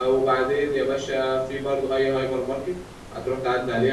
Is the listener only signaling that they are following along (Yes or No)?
Yes